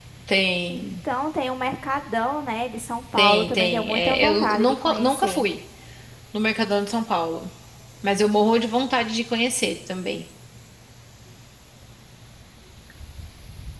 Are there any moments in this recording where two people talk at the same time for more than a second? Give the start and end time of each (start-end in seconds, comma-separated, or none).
3.2-5.5